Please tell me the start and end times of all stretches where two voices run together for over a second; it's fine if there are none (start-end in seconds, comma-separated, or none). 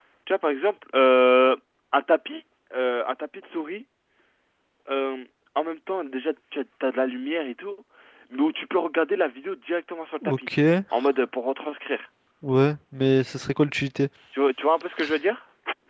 none